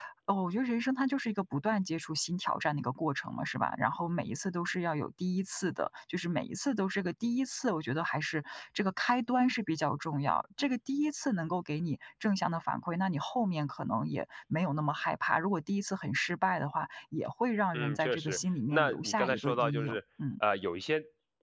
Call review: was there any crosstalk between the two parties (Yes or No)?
Yes